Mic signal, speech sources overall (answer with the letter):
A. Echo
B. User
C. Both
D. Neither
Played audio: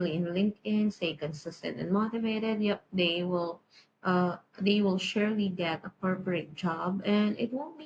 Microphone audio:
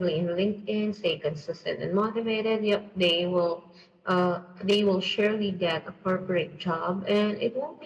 A